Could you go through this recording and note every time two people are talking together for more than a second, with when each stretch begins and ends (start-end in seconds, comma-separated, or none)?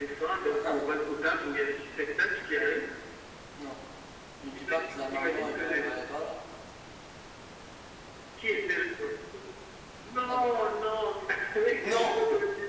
4.7-6.0